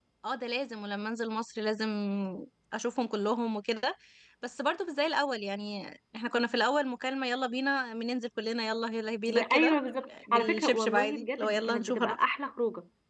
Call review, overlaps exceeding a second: present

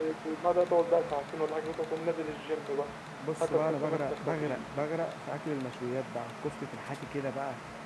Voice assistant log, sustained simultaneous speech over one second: present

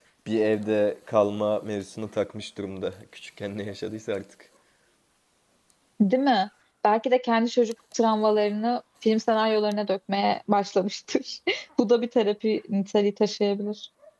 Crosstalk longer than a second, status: none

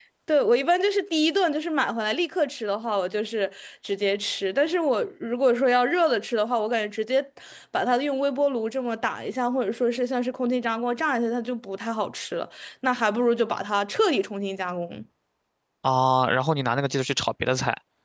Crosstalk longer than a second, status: none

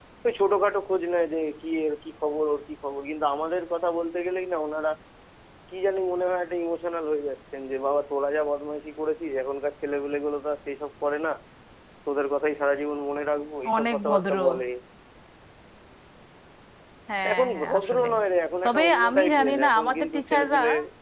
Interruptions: present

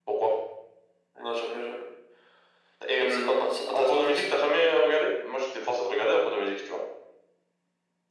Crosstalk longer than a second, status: present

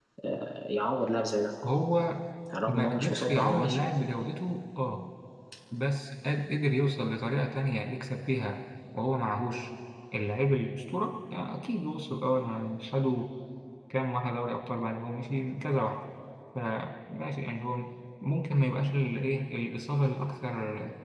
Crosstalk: present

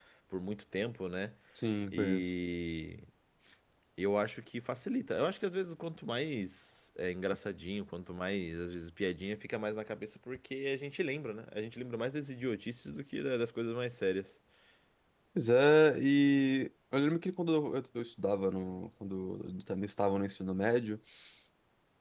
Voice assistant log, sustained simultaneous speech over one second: none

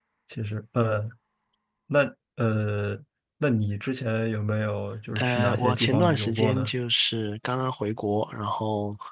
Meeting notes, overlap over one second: present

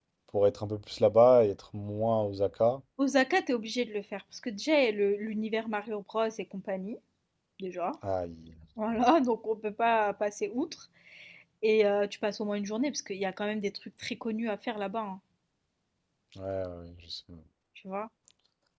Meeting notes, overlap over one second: none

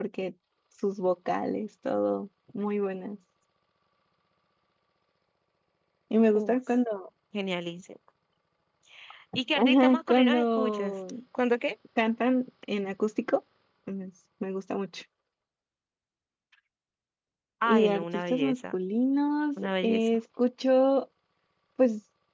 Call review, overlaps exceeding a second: present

